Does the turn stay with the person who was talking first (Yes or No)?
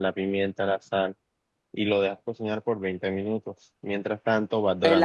No